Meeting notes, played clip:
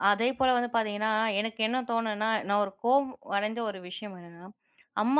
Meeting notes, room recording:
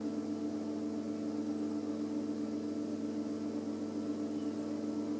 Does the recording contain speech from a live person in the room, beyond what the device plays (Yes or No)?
No